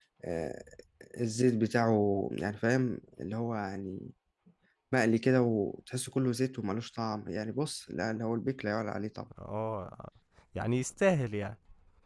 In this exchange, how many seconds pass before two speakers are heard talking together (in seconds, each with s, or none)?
none